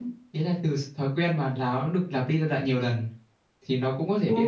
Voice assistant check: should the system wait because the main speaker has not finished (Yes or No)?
No